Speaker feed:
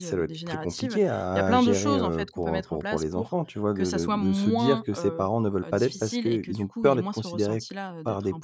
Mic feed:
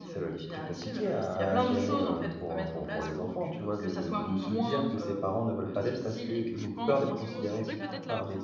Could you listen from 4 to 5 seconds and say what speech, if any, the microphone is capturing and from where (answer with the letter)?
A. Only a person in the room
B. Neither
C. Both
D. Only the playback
C